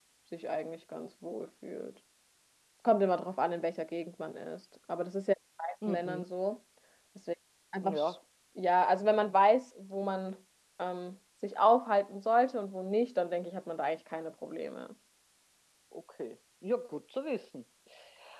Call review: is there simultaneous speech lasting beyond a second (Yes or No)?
No